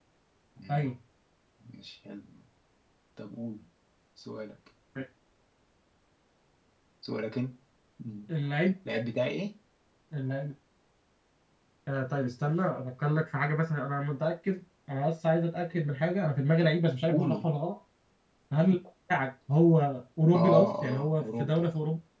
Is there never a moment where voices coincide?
No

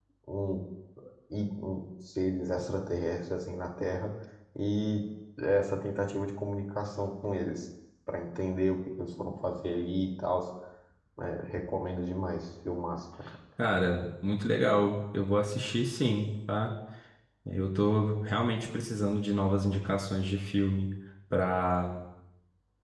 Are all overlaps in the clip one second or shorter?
Yes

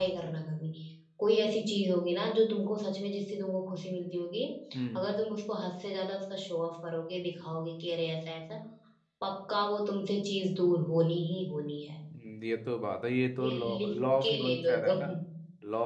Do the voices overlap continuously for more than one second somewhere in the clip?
Yes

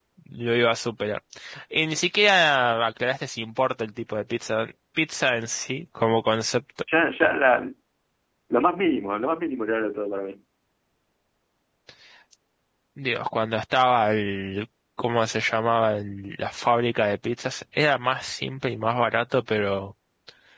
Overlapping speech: No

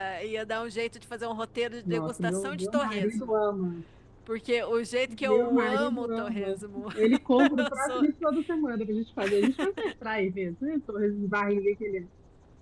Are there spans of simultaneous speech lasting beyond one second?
Yes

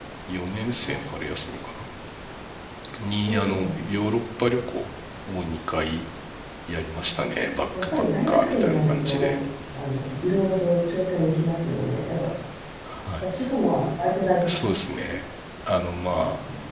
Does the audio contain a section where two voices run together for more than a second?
Yes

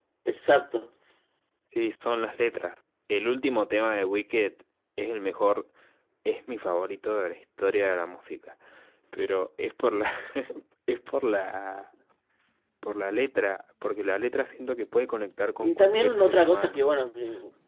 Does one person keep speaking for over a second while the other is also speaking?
Yes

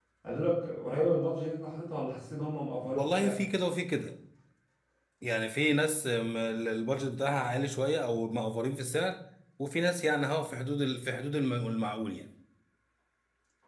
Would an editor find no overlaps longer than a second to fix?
Yes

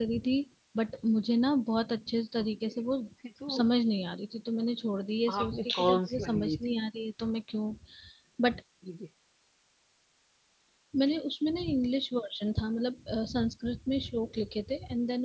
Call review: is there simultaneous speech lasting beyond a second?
Yes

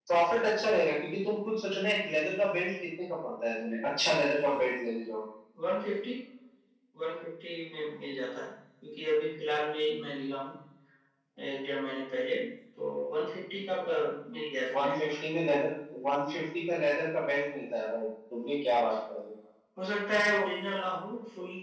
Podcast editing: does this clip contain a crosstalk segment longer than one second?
No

